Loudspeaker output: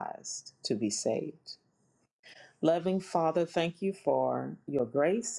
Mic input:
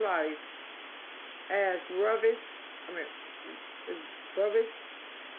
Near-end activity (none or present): present